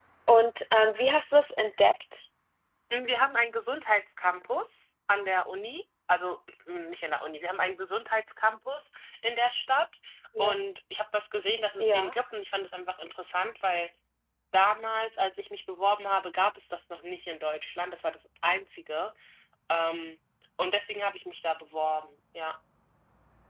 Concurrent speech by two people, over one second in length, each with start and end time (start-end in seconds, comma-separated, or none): none